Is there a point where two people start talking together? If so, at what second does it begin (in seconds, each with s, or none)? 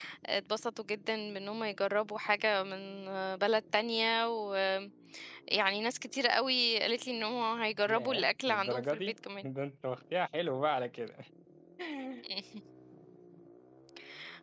7.9 s